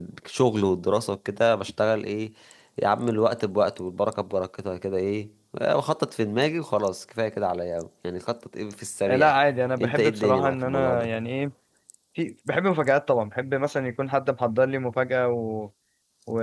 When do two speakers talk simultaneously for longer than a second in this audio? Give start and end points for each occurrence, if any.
9.8-11.1

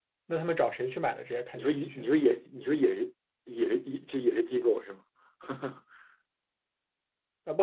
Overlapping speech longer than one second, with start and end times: none

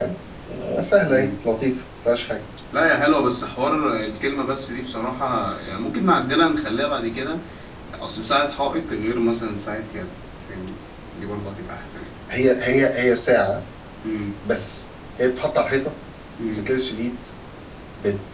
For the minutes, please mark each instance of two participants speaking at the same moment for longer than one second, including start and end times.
none

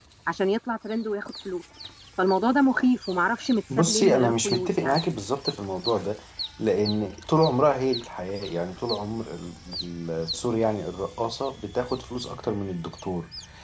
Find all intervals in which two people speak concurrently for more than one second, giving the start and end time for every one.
3.8-5.0

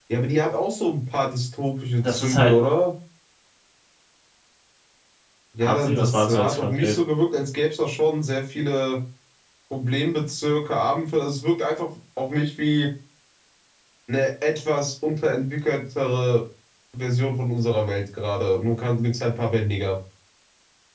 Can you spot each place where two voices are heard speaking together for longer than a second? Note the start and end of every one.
5.6-7.0

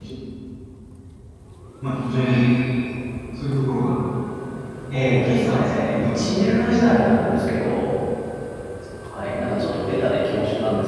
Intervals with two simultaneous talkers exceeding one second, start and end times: 4.9-7.0

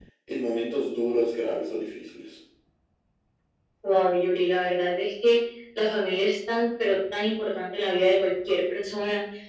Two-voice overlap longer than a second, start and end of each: none

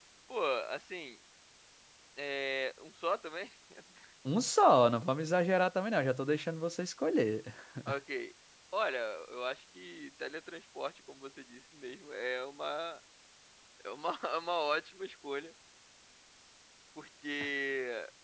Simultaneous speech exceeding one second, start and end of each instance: none

